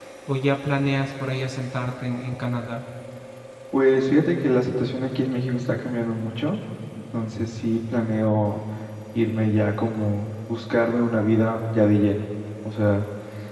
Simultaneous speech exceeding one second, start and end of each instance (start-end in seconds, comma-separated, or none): none